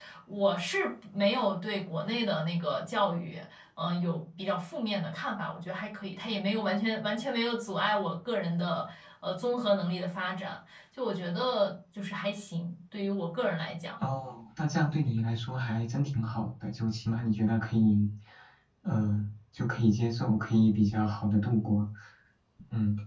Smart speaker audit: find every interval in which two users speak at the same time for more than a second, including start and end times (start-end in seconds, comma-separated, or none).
none